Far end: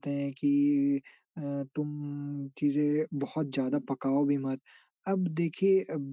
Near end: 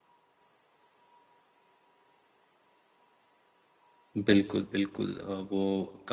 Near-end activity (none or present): present